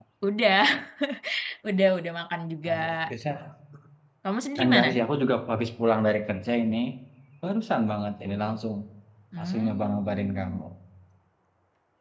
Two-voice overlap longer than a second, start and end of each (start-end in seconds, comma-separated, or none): 9.4-10.6